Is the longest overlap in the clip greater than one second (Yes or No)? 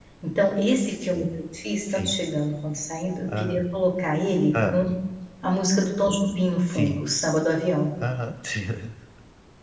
No